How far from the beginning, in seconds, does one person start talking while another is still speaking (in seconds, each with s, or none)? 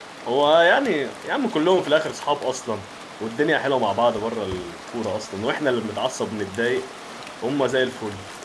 none